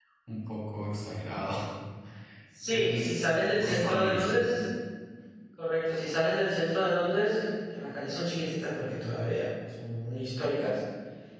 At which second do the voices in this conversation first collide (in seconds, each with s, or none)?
2.7 s